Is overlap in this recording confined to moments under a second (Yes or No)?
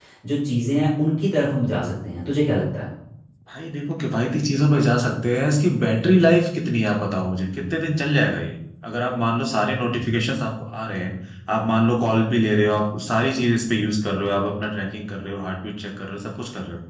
Yes